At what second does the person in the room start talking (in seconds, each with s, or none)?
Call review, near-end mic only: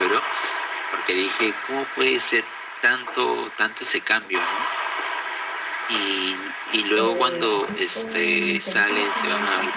6.9 s